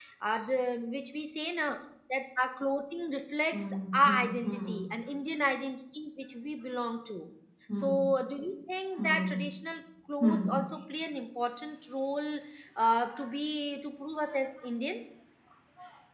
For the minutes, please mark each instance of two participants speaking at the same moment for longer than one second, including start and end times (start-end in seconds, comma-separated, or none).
3.5-4.8